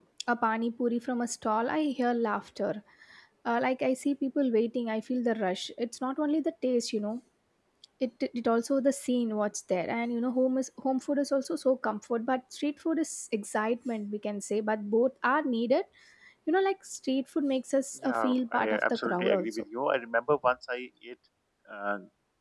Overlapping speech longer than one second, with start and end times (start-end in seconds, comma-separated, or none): 18.0-19.6